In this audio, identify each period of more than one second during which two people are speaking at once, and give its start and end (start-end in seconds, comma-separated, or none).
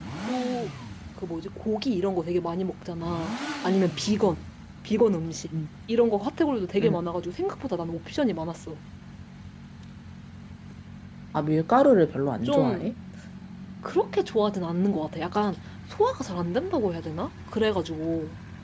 none